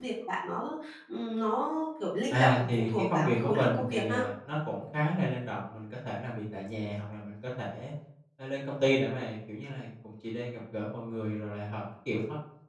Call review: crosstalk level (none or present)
present